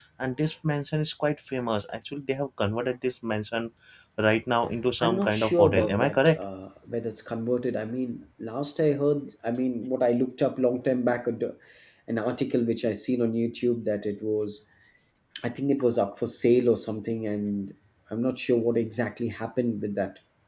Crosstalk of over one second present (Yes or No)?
Yes